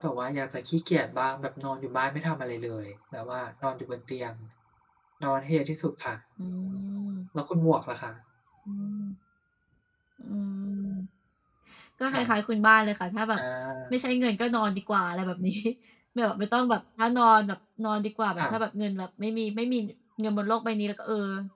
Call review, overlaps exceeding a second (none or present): none